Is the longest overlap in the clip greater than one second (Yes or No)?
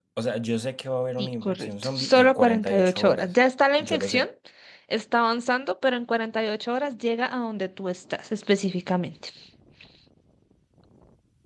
Yes